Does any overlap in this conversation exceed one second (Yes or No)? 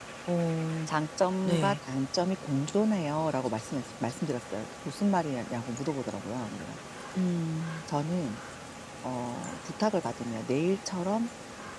No